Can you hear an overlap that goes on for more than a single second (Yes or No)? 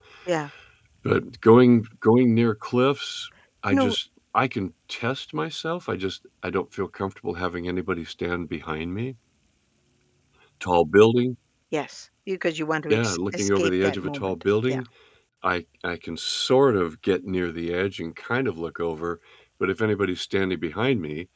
Yes